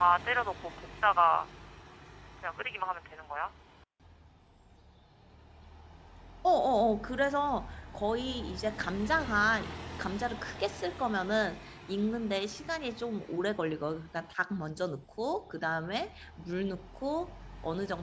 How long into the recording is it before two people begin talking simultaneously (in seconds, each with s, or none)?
none